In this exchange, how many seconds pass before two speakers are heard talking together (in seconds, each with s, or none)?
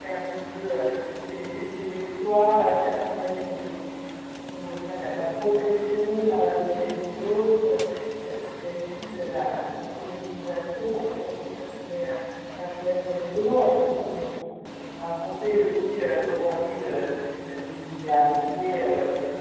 none